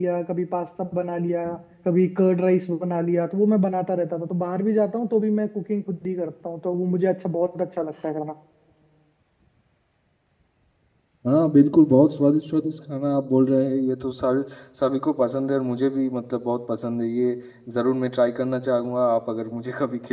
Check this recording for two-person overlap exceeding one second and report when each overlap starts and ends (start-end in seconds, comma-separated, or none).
none